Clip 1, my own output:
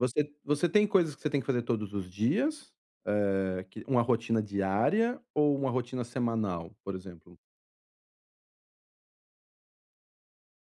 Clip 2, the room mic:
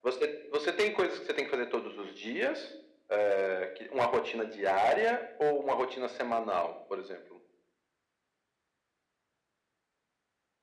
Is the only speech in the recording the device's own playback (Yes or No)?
Yes